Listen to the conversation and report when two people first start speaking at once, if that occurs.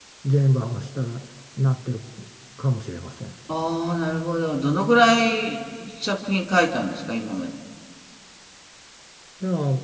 none

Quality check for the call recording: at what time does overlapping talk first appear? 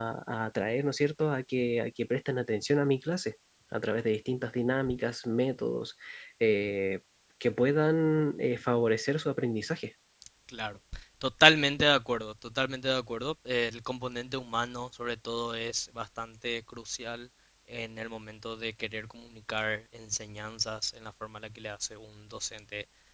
none

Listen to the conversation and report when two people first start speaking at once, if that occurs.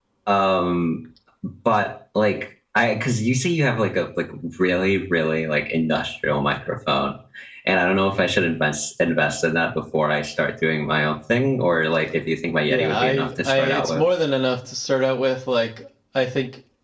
12.7 s

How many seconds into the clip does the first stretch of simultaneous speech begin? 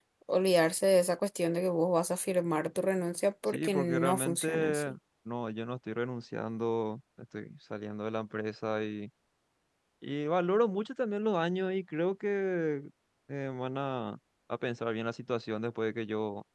3.5 s

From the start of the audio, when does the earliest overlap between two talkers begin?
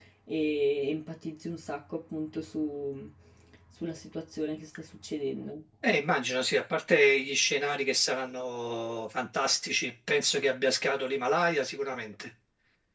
none

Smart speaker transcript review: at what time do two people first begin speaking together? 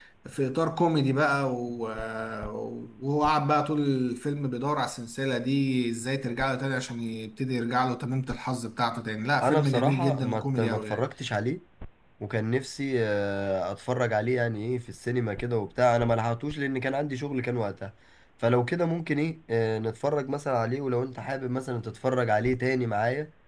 9.4 s

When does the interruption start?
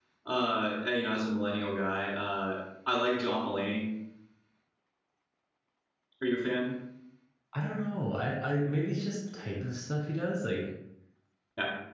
none

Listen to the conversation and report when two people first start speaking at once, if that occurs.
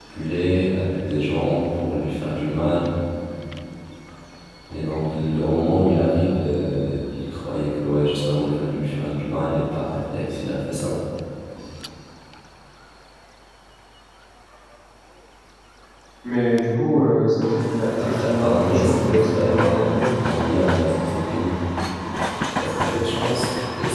18.0 s

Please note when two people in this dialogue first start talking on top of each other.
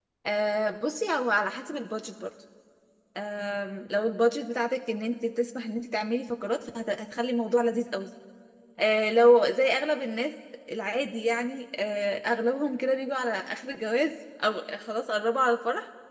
none

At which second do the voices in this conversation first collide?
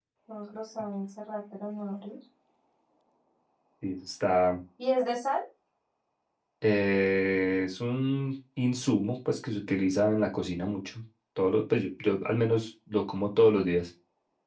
none

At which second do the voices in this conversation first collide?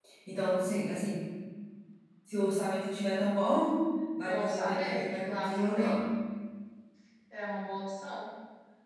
4.2 s

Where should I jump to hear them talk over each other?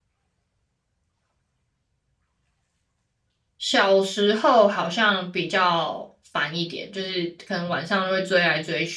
none

